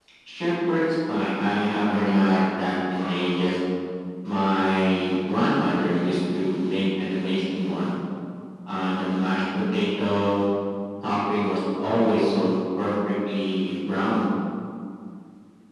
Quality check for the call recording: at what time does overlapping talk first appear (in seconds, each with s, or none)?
none